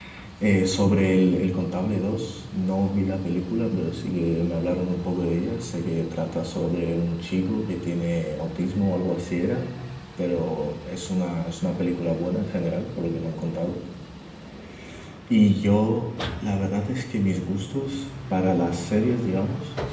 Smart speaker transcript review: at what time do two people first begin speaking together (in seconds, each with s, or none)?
none